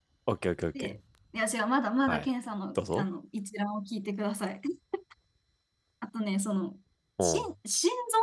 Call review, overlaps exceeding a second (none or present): none